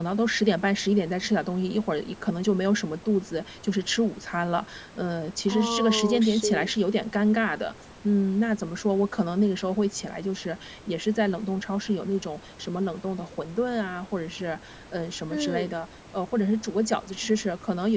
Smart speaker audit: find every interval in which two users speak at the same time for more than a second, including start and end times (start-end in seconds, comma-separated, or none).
5.5-6.7